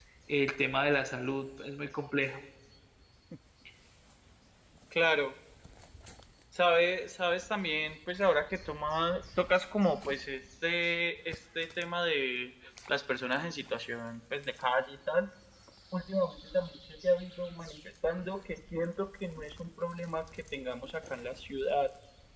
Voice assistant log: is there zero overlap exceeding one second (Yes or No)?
Yes